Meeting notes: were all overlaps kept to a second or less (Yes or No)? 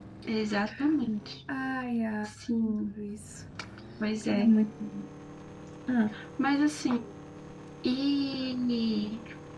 Yes